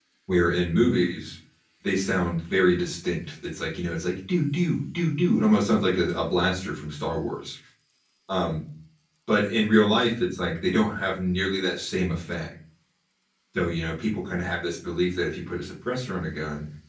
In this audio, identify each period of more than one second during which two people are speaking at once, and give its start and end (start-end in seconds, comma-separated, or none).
none